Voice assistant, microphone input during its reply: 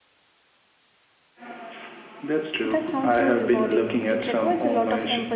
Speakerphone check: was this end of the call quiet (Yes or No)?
No